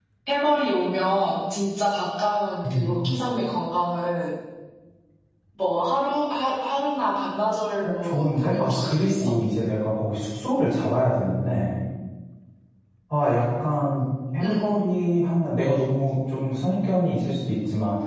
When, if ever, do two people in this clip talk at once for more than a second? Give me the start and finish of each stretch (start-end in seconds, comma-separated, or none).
7.8-9.3